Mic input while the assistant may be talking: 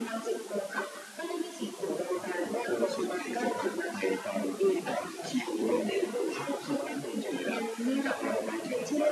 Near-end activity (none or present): none